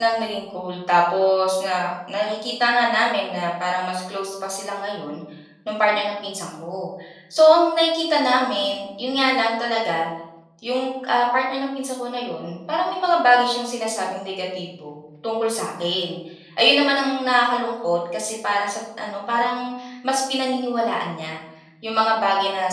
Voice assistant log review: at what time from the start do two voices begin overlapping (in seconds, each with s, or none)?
none